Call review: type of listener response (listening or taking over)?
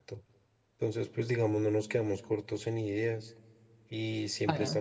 listening